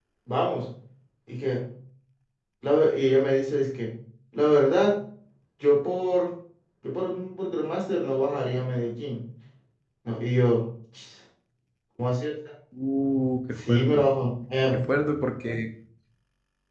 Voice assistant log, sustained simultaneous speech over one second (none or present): none